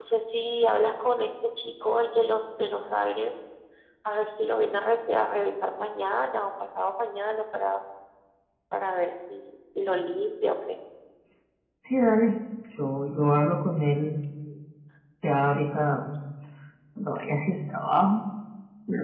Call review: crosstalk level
none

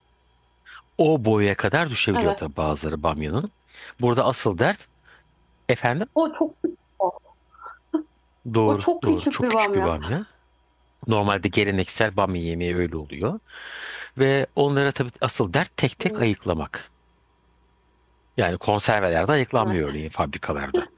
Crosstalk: present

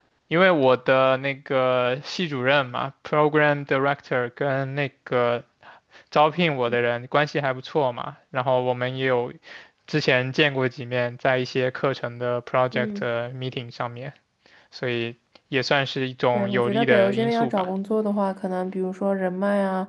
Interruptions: present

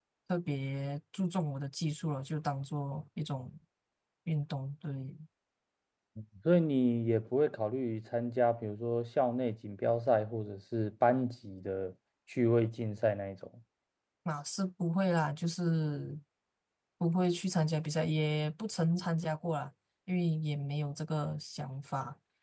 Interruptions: none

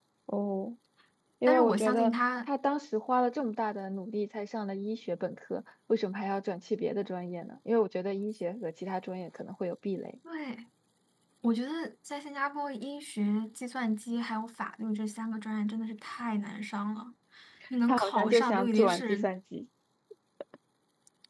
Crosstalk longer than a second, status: present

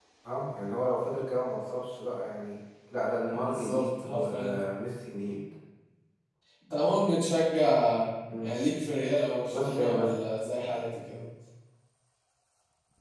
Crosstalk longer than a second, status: present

